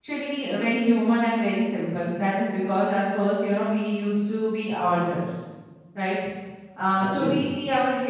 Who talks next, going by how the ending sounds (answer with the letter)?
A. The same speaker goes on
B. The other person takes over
A